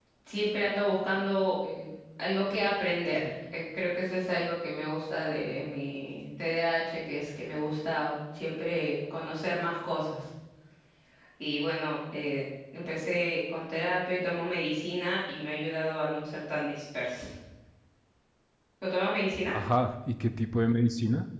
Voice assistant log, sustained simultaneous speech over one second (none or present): none